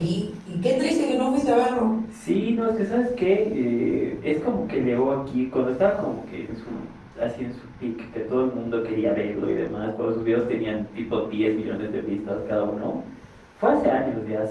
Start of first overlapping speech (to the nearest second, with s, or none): none